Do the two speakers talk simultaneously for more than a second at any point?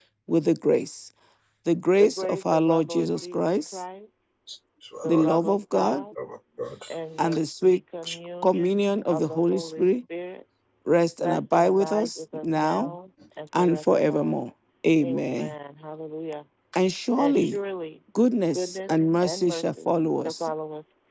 Yes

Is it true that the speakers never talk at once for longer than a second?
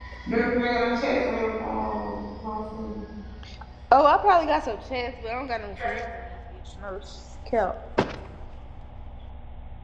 Yes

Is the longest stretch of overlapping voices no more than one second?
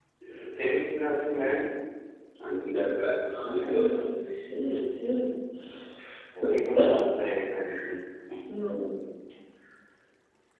Yes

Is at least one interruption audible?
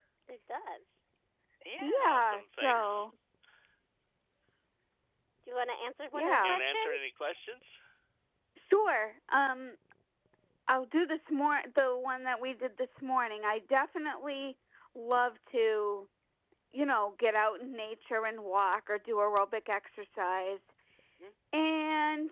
Yes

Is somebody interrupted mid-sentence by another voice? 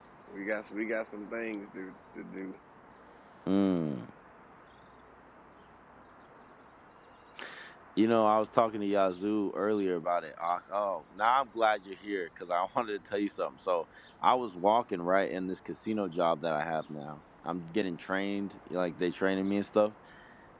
No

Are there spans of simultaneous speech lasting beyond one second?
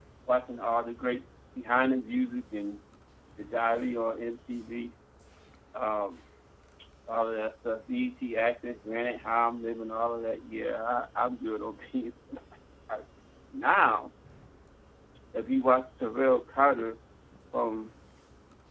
No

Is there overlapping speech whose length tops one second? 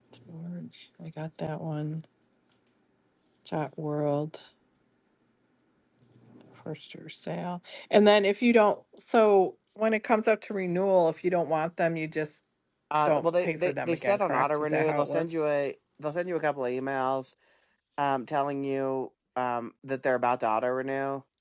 Yes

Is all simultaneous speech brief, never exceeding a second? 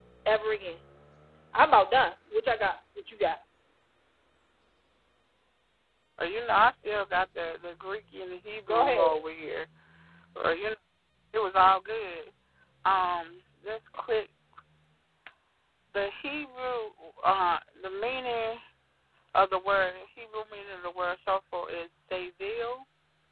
Yes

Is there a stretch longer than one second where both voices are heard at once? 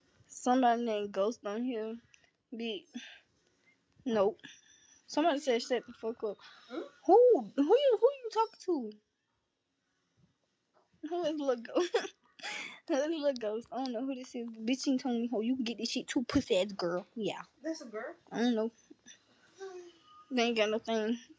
No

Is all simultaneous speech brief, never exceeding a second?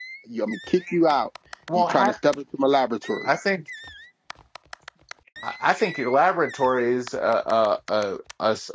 Yes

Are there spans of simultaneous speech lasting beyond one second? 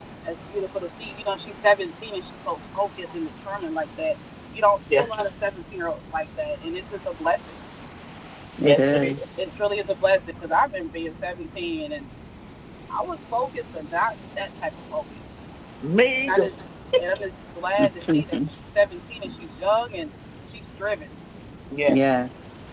No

